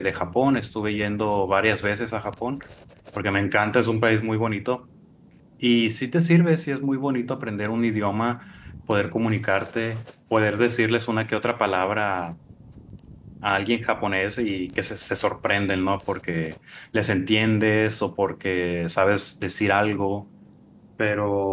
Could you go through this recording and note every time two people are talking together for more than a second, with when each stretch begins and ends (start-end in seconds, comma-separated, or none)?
none